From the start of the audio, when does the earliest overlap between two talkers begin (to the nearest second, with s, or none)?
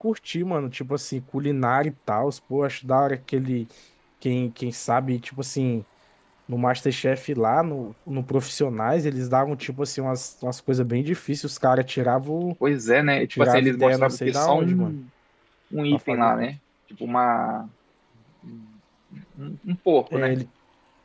13 s